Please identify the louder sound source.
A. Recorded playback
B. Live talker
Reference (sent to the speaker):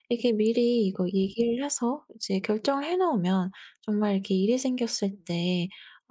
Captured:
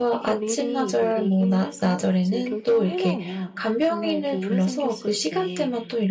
B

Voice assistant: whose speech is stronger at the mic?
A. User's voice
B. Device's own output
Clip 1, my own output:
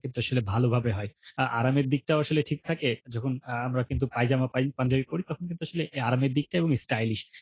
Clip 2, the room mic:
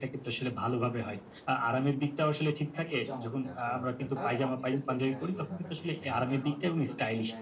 B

